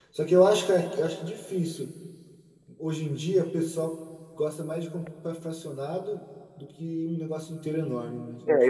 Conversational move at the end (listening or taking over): taking over